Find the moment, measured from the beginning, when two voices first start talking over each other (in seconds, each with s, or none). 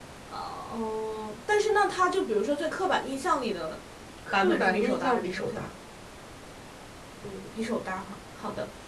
4.3 s